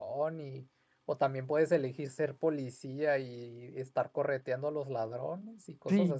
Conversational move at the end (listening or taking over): taking over